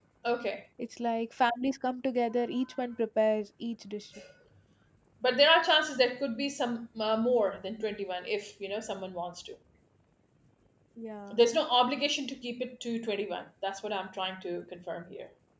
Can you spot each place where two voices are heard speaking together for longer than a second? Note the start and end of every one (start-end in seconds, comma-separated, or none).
none